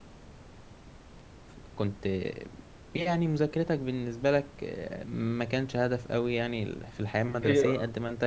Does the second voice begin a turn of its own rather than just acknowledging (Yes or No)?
No